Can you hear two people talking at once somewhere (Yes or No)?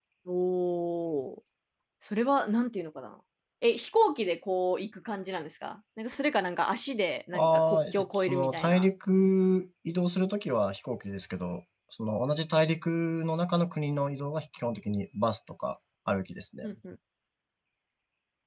Yes